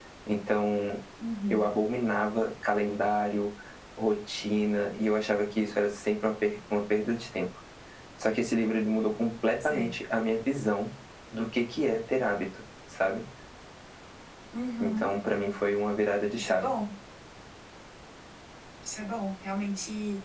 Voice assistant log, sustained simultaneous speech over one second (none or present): none